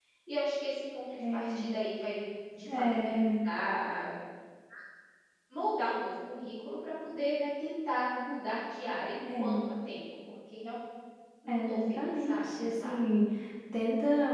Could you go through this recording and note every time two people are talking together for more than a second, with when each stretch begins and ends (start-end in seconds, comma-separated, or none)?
11.5-13.0